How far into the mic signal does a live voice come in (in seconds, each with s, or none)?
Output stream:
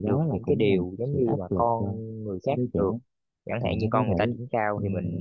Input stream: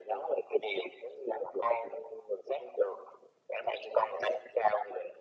none